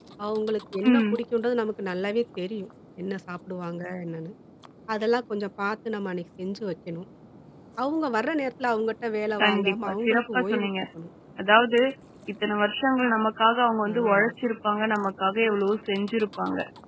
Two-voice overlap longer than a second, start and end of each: 9.4-10.7

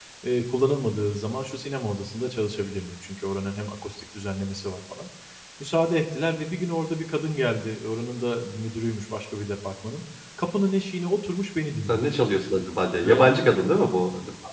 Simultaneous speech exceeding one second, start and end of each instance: none

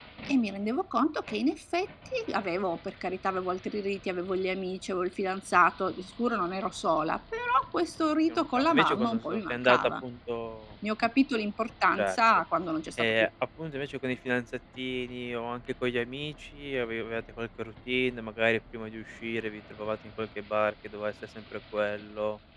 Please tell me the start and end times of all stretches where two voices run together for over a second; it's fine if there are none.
8.3-9.9

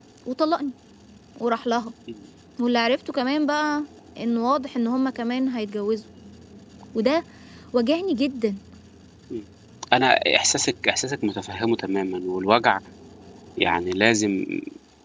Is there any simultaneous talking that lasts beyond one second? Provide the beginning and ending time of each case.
none

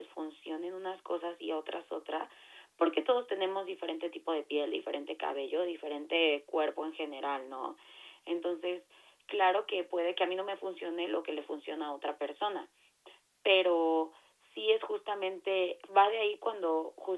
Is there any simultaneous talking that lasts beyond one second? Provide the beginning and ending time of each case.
none

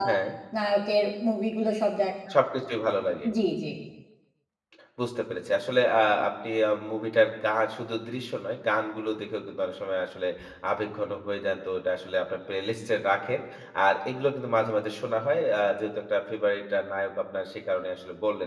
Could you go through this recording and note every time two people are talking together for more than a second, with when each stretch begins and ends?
none

